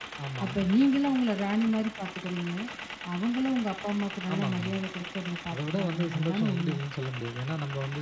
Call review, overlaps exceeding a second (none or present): present